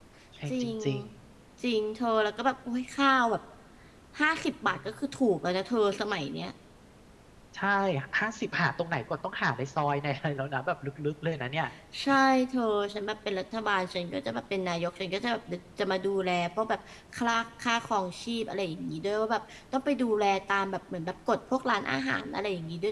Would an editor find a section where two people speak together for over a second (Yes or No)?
No